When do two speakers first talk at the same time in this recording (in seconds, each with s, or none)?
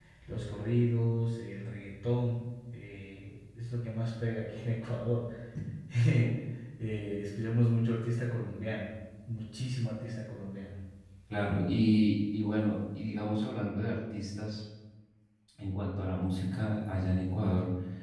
none